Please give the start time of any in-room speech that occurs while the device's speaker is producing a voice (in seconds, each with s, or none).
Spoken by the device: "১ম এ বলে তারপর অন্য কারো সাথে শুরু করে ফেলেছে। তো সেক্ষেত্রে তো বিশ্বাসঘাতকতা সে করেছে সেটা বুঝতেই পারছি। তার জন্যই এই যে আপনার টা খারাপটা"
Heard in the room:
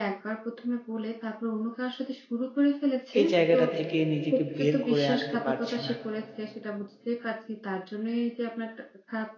3.2 s